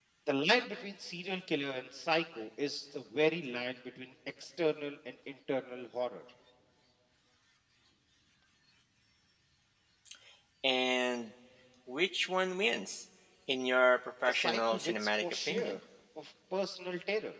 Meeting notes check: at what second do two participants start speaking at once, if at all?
14.3 s

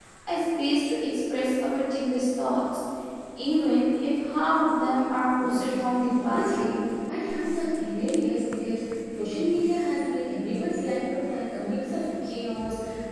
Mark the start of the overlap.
5.4 s

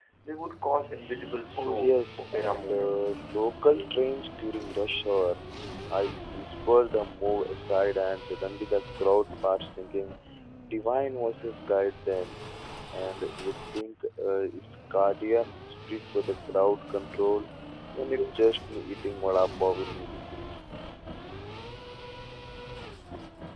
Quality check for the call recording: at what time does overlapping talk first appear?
1.5 s

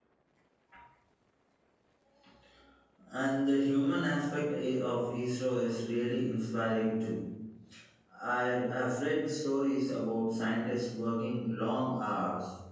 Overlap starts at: none

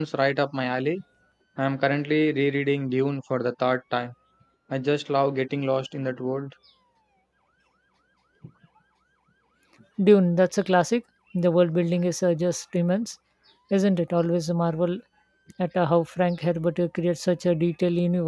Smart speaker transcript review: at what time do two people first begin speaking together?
none

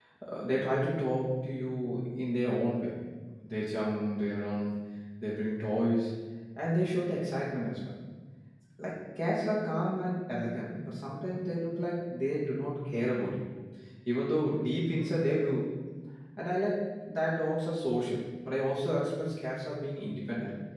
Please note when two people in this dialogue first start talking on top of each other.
none

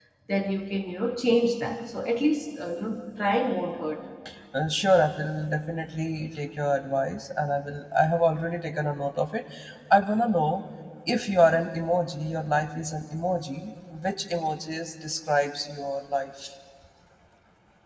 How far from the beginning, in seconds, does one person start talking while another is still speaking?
none

